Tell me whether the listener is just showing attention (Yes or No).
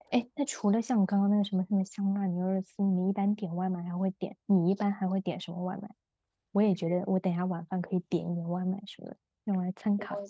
No